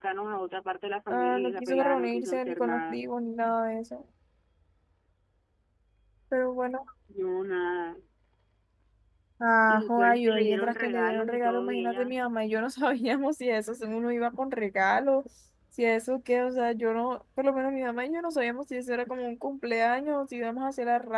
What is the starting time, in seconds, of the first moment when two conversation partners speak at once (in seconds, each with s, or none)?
1.1 s